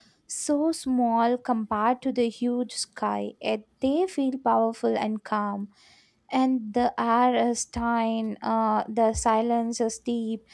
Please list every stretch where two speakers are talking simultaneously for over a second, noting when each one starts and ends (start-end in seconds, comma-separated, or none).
none